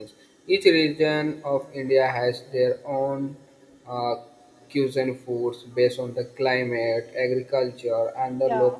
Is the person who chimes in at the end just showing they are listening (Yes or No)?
Yes